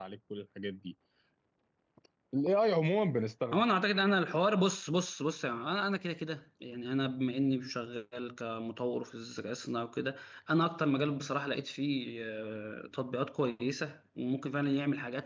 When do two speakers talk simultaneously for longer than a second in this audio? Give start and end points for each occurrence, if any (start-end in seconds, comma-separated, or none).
none